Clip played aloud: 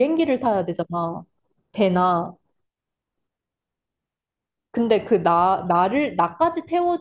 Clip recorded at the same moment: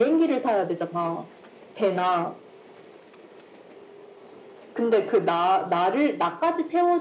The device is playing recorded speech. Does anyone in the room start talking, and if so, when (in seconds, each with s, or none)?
none